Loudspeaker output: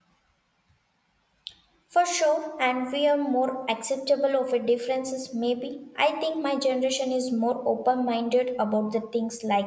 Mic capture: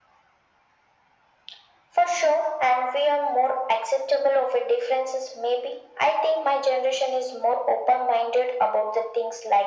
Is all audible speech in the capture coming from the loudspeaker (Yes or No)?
Yes